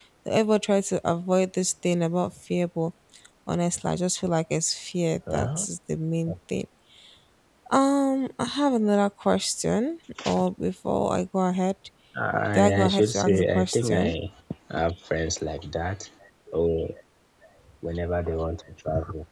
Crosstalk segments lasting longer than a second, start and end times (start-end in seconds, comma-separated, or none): 12.5-14.1